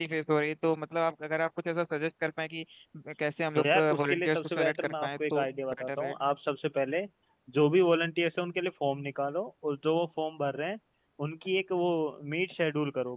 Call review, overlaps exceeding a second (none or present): present